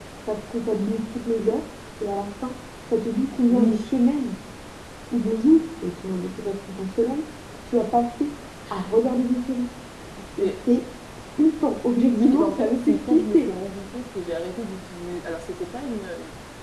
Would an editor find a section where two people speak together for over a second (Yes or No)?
Yes